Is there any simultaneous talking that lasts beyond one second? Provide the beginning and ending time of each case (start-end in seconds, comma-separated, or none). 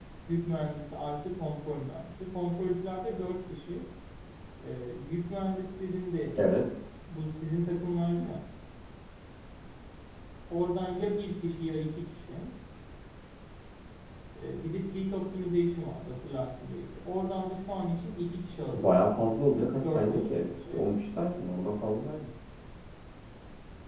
18.8-20.9